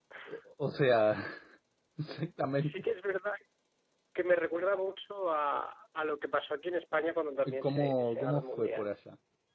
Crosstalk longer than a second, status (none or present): present